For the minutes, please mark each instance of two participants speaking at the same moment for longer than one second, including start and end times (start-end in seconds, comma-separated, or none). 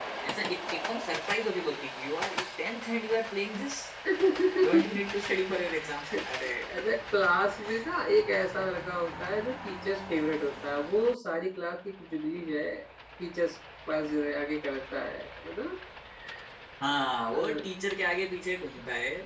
none